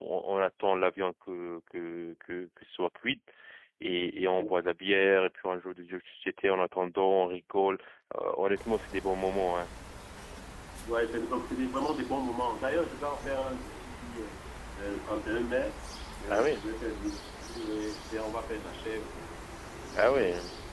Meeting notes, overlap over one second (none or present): none